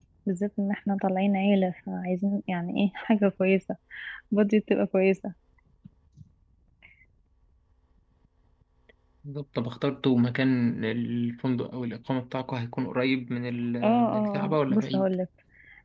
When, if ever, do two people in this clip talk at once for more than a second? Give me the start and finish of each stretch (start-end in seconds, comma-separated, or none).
13.8-15.1